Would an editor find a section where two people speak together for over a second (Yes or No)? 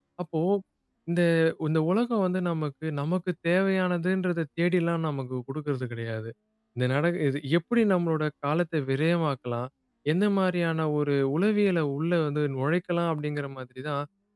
No